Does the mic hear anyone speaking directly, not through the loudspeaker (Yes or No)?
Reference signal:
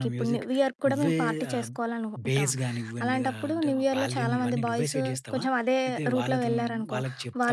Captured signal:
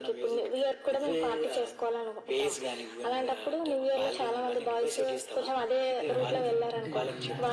Yes